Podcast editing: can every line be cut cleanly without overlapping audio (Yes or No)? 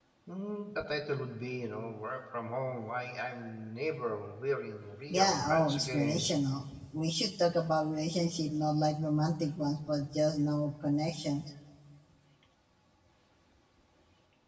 No